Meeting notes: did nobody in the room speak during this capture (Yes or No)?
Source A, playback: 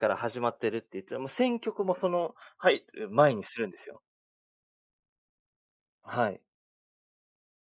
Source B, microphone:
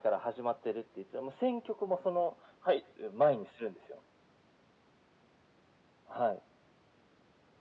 Yes